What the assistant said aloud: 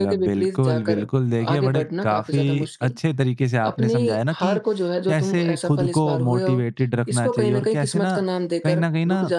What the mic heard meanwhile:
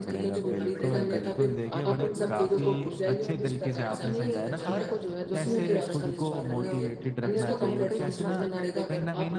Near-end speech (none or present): present